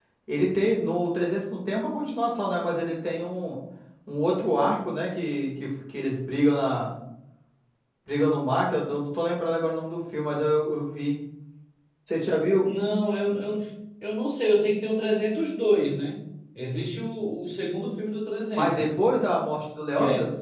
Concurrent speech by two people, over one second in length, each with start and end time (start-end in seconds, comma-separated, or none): none